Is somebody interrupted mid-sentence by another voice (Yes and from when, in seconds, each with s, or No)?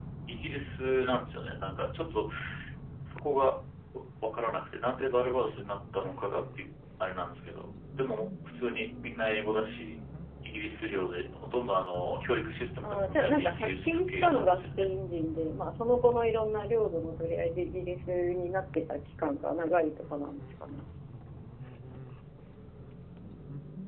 Yes, from 12.8 s